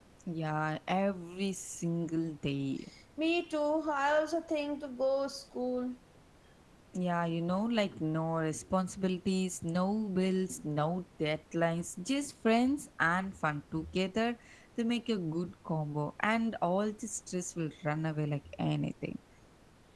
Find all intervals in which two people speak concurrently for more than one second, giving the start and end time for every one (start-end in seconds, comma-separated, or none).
none